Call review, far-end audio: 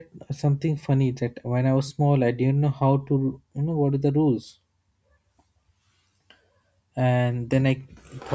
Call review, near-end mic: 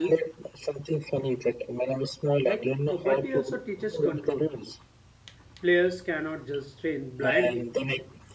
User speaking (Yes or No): Yes